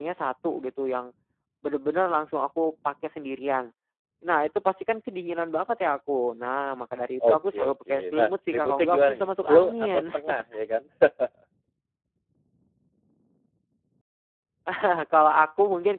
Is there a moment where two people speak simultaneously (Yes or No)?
Yes